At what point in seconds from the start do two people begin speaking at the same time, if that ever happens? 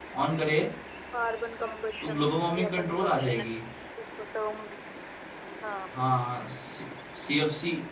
2 s

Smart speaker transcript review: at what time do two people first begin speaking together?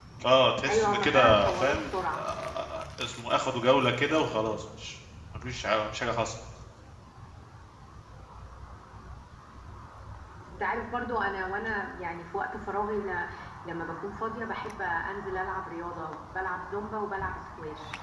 1 s

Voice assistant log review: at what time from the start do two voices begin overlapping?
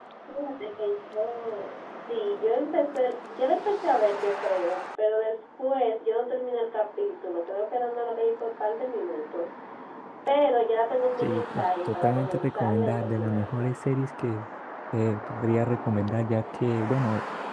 11 s

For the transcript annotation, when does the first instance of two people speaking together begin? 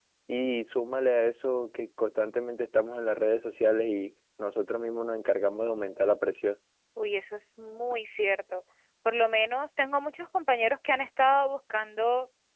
none

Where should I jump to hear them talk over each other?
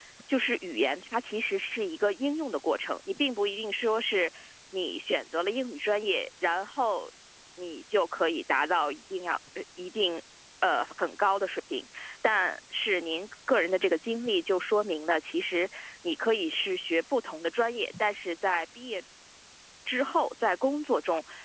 none

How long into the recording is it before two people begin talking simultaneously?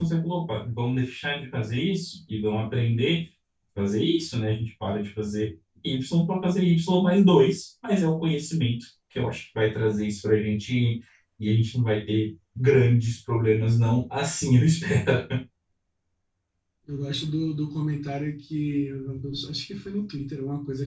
none

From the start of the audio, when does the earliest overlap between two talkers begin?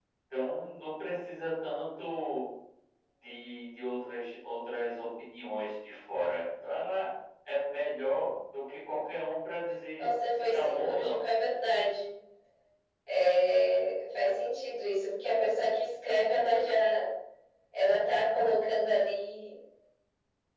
10 s

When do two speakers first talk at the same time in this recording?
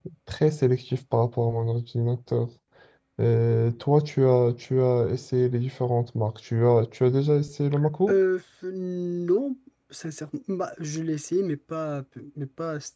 none

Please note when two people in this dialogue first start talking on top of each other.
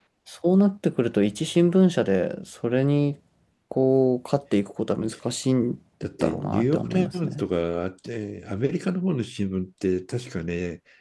6 s

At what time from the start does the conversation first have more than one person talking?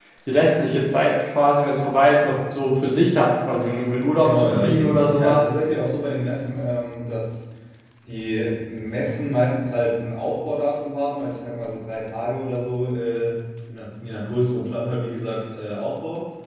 4 s

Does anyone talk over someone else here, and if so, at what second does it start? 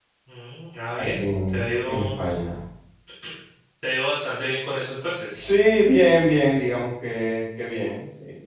1 s

